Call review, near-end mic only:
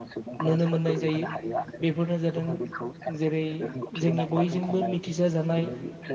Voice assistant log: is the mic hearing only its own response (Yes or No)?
No